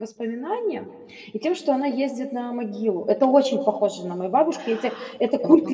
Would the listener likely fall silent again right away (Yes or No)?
No